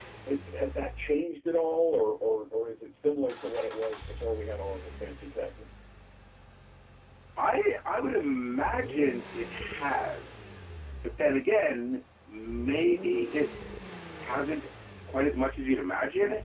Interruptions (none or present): none